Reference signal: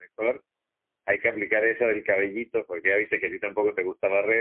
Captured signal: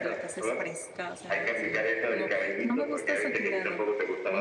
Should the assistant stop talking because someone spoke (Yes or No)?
Yes